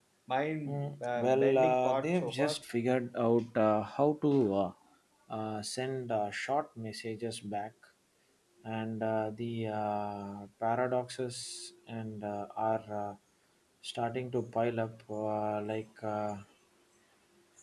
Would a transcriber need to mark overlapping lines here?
Yes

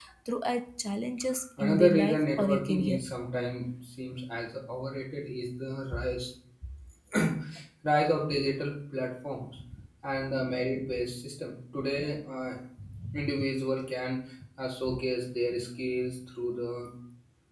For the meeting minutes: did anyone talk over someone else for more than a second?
Yes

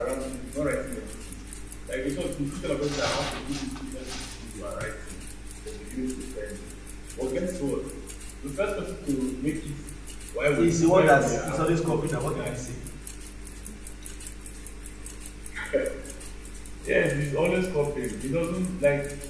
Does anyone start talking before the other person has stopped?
Yes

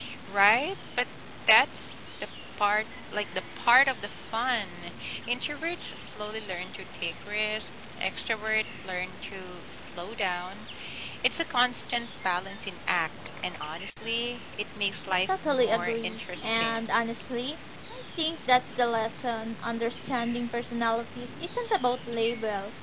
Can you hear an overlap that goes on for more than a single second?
Yes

